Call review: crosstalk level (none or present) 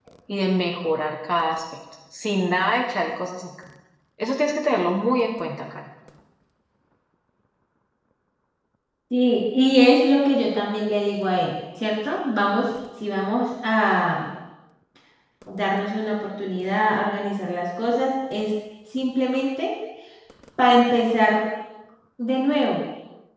none